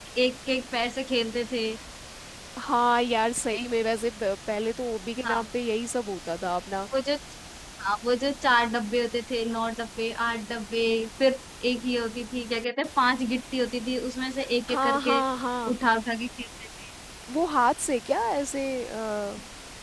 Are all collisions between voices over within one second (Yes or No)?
Yes